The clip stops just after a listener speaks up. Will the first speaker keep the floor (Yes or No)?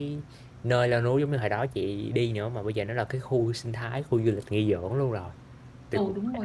No